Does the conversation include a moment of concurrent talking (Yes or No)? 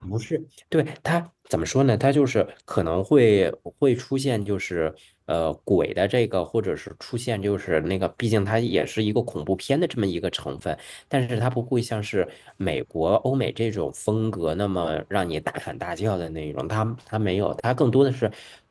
No